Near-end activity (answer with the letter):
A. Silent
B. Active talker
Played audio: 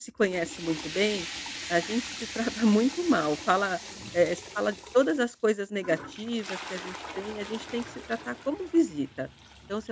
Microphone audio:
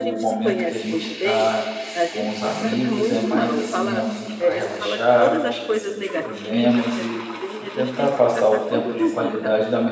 B